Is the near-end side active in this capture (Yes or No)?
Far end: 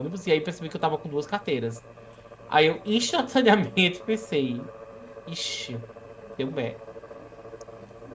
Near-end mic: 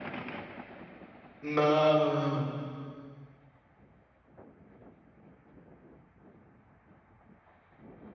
Yes